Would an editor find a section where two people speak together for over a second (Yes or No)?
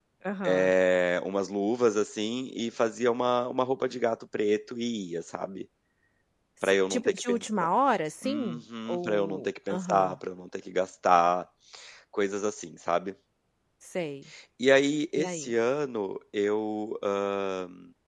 Yes